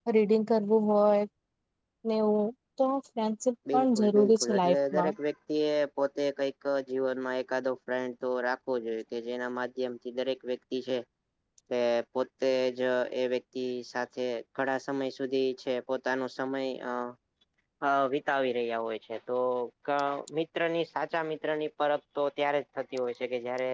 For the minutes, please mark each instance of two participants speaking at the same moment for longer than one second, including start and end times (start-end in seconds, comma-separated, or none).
3.7-5.1